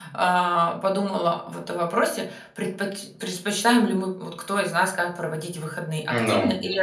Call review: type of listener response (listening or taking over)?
listening